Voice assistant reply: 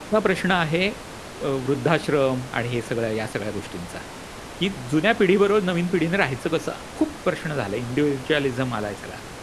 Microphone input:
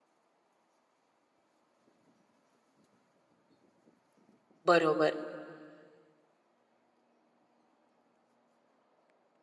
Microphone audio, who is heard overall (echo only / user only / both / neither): user only